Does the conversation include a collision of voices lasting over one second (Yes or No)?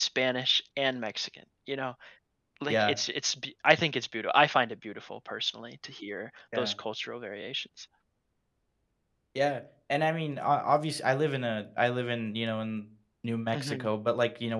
No